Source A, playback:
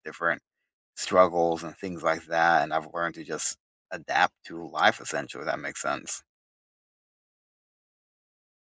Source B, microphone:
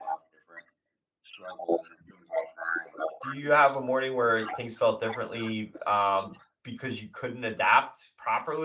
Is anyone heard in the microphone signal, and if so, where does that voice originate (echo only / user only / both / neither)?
both